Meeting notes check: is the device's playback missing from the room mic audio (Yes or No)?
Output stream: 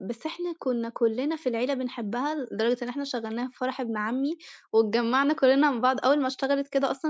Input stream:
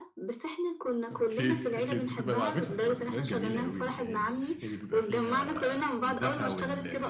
No